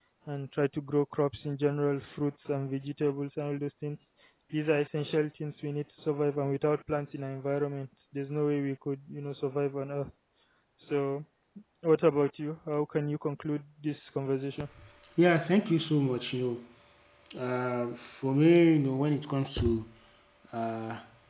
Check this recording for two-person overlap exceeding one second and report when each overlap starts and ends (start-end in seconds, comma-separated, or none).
none